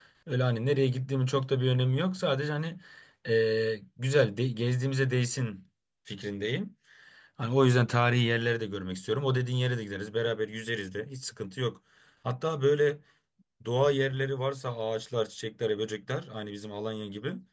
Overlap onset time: none

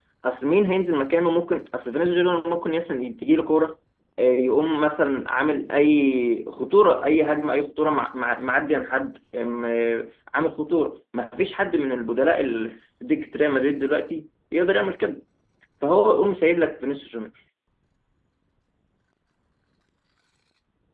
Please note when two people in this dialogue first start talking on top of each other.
none

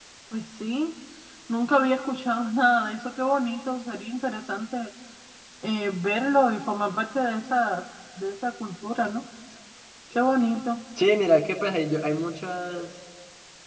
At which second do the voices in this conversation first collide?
none

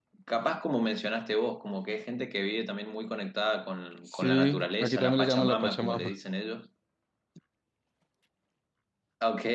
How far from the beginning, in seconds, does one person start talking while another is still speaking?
4.1 s

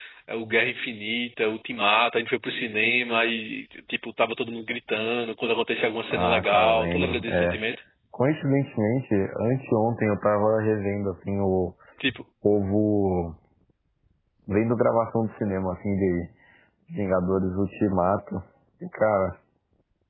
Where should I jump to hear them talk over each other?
6.1 s

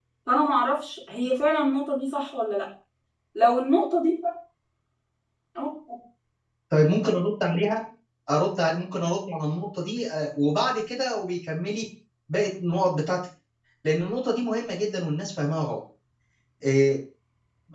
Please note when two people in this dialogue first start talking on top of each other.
none

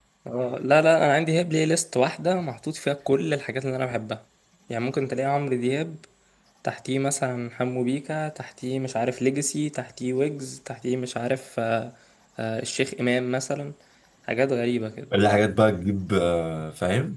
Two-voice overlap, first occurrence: none

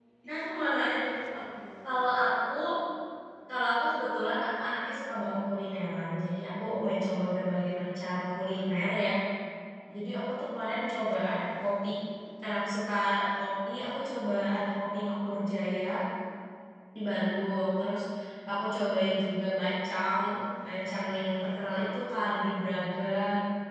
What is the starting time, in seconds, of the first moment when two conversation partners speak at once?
none

